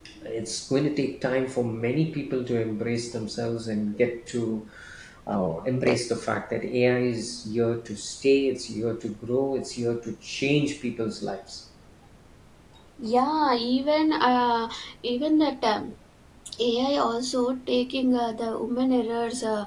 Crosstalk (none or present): none